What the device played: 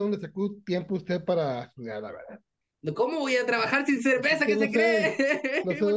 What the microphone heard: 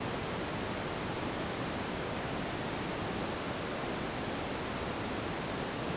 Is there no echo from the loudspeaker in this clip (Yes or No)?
Yes